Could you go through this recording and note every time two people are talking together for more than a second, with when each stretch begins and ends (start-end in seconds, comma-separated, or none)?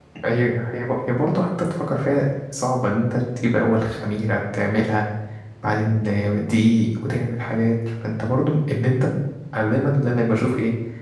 none